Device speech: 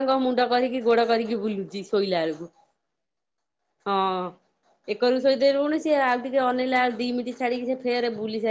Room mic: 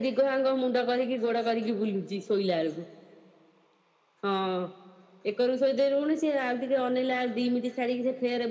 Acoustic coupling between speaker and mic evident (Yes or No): Yes